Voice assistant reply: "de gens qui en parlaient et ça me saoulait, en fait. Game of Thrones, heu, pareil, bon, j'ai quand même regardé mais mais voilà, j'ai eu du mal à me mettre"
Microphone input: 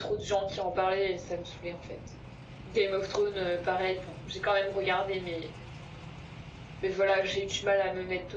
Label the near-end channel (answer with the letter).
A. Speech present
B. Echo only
B